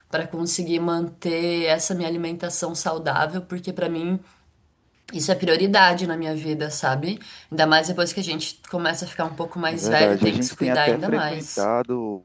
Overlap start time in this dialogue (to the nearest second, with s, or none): 10 s